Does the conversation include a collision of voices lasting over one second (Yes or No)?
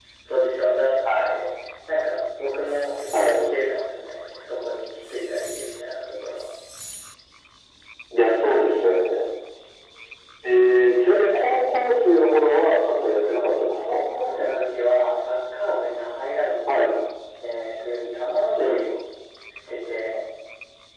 No